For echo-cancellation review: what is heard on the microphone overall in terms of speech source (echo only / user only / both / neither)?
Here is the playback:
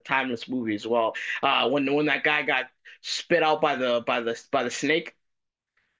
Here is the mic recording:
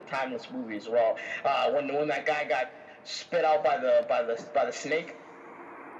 echo only